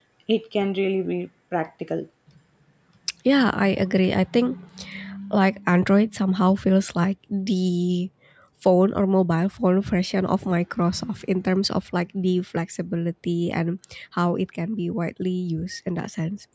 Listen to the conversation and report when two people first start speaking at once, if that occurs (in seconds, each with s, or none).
none